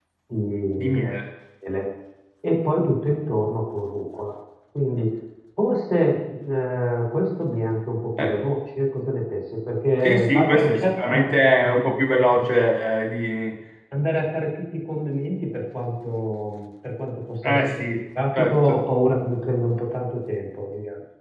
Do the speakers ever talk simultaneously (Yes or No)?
Yes